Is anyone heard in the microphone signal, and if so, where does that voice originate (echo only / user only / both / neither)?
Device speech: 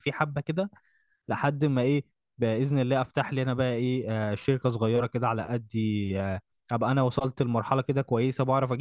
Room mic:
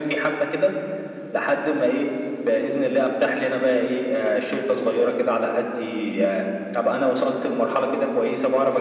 echo only